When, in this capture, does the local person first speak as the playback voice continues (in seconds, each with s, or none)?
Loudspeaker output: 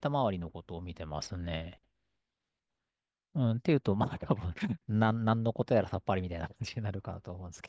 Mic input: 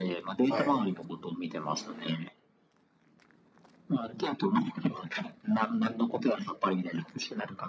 0.5 s